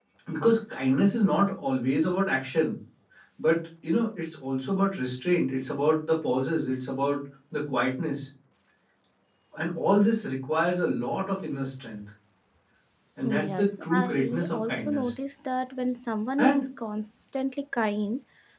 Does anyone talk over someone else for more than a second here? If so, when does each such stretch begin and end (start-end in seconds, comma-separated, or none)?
13.4-15.1